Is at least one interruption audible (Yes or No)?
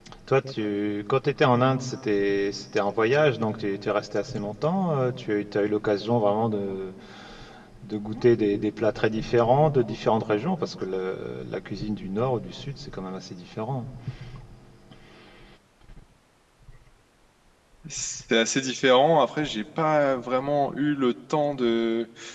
No